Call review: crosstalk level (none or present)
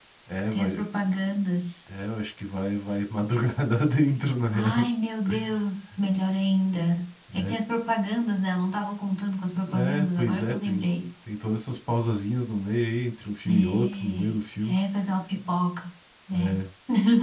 present